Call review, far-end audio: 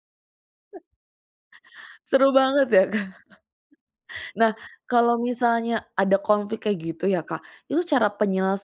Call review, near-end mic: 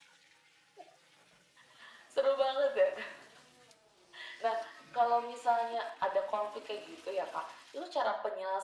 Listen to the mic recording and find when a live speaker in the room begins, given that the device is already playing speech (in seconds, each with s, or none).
none